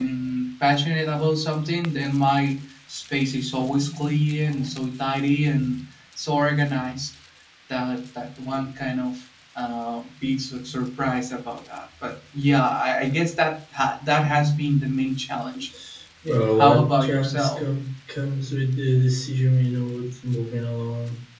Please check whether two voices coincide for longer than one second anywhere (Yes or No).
Yes